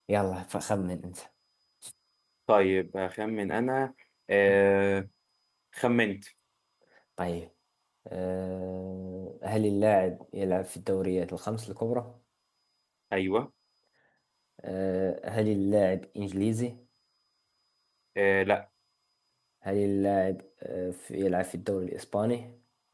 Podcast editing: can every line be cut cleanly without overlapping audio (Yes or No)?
Yes